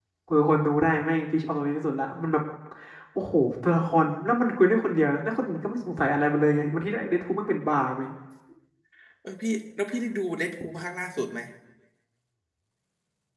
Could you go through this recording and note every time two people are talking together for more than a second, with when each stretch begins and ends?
none

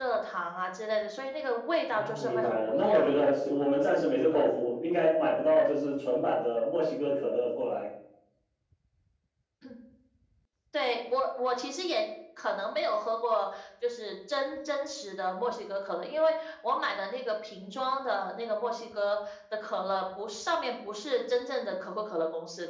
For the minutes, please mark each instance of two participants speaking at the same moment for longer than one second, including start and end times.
1.9-3.1

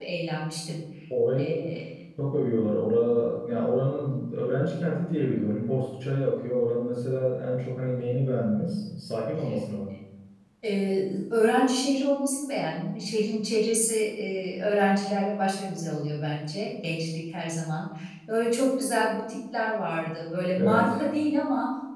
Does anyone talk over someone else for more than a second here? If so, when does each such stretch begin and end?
none

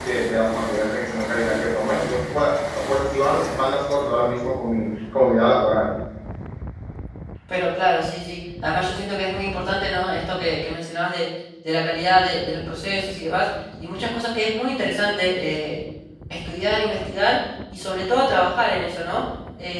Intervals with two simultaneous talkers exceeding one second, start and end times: none

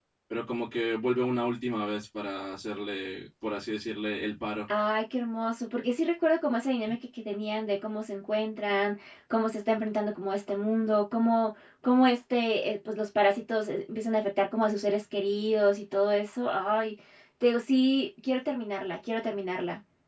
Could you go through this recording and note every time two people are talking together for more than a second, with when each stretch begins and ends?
none

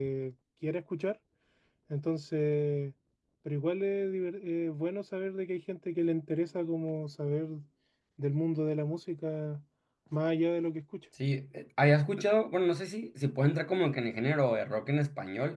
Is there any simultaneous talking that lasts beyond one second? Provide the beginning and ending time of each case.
none

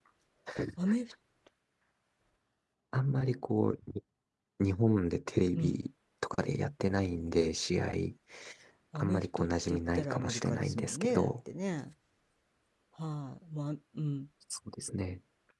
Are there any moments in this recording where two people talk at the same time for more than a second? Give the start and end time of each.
8.9-11.3

